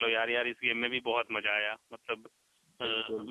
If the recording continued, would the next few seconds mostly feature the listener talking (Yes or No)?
No